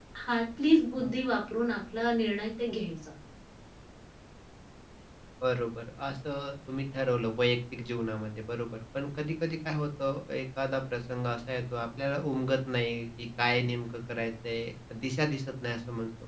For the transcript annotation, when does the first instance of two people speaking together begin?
none

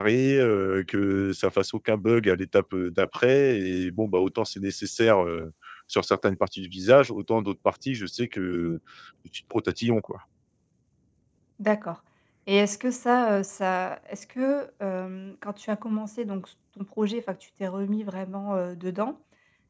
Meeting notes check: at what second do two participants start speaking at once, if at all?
none

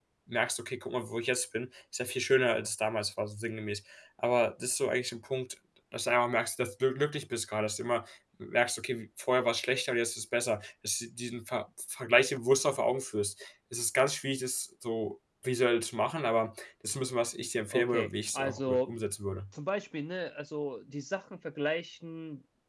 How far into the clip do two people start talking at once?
17.7 s

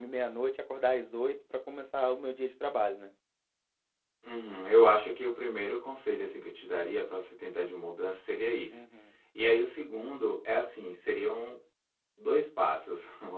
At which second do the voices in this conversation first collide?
none

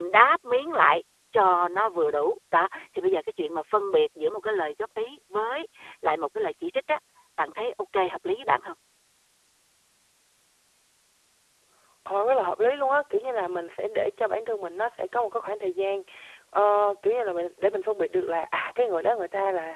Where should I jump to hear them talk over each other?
none

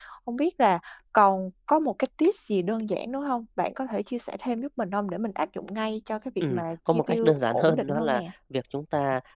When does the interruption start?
6.4 s

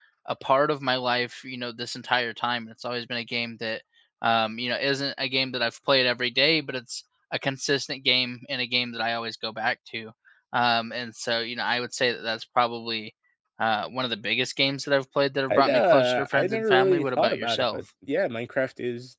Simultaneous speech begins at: 15.5 s

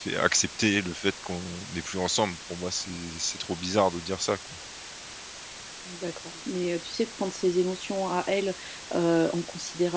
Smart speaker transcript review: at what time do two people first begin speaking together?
none

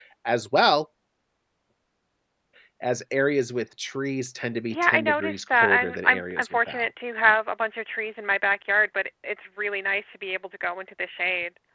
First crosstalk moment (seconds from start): 4.7 s

